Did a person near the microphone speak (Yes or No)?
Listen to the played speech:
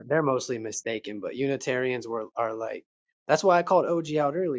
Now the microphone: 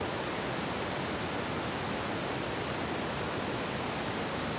No